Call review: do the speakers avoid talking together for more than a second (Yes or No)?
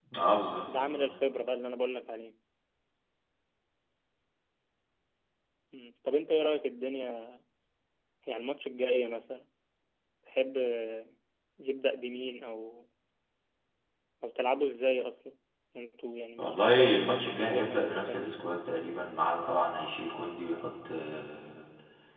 No